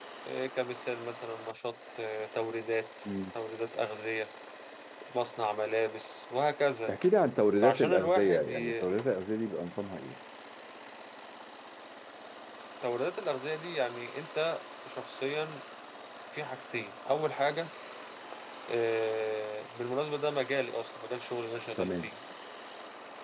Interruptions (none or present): present